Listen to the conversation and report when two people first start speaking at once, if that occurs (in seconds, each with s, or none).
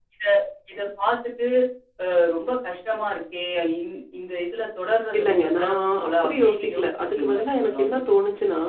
5.1 s